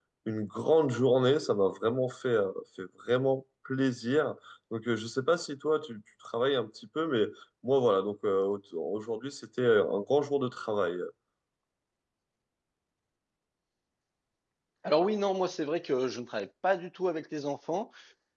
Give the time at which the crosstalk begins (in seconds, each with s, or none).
none